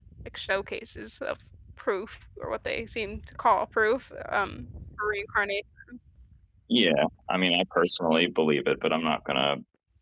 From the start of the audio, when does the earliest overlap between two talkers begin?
none

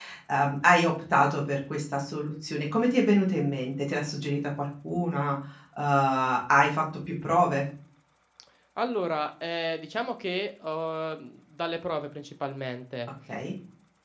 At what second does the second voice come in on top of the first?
none

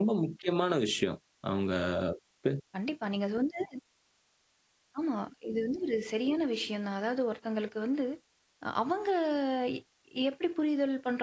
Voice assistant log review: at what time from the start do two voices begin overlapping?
none

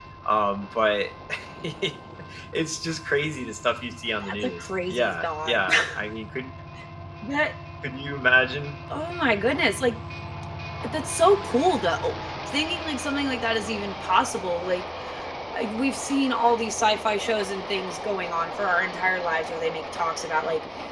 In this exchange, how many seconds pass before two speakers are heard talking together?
4.2 s

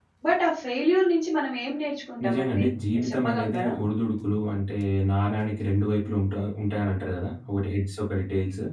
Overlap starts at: 2.2 s

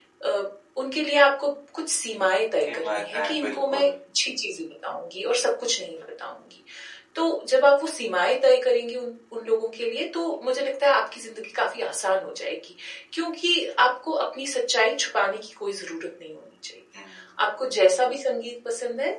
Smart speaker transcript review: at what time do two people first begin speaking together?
2.7 s

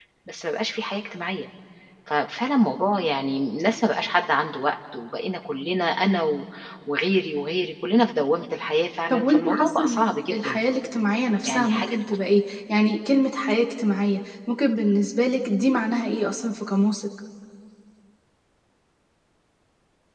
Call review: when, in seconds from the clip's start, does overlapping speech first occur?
9.1 s

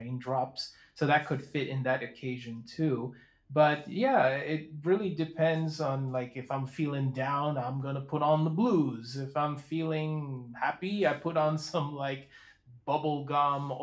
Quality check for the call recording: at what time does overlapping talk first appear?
none

